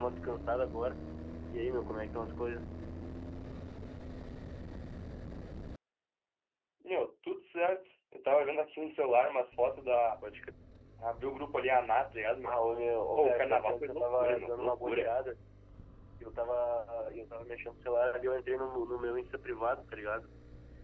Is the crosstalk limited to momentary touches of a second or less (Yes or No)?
No